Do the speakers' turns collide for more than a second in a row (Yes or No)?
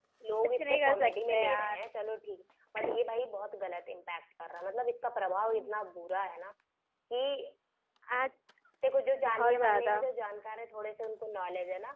Yes